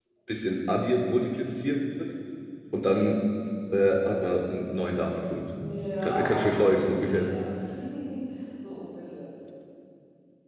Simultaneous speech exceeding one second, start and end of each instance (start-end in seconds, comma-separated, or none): 6.0-7.3